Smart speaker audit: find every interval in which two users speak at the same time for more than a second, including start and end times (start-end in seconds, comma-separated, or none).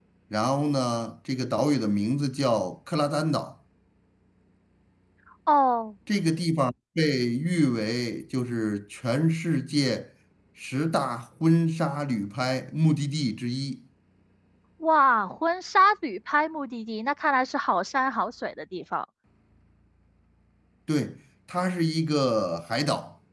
none